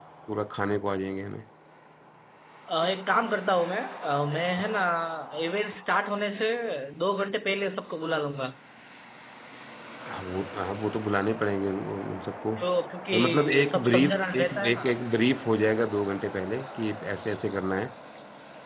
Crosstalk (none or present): present